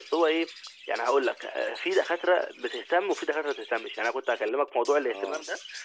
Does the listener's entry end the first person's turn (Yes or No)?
No